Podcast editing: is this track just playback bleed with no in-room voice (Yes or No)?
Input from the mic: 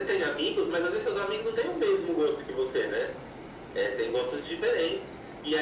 Yes